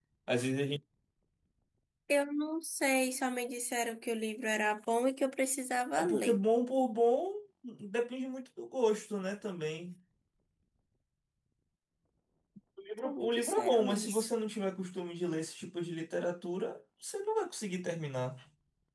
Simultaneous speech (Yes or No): Yes